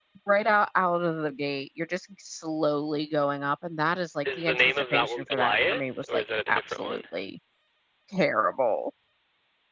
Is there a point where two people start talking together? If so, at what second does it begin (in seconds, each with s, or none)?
4.2 s